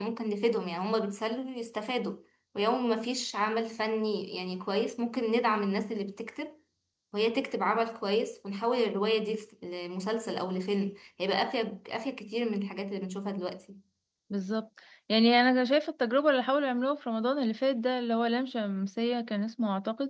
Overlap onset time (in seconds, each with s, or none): none